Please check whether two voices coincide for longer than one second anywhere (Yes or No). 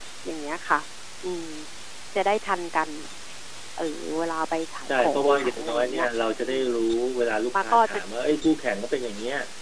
Yes